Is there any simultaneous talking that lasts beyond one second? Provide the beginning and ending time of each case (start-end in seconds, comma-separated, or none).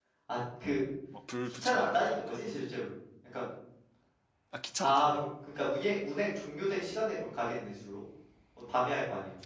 1.4-2.7